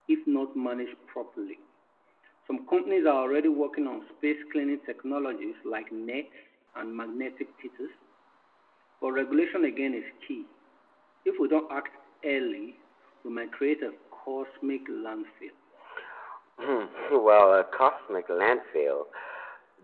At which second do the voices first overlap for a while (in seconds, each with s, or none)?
none